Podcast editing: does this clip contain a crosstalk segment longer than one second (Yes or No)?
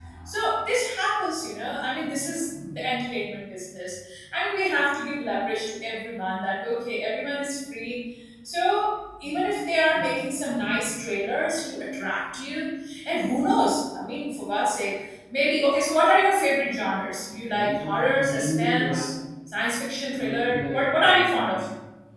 Yes